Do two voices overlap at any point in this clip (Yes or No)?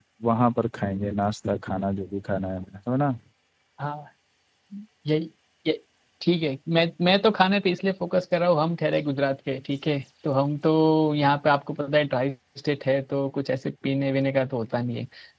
No